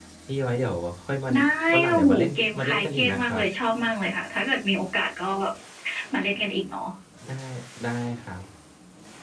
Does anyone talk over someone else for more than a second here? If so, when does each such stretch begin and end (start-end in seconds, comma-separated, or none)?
1.9-3.4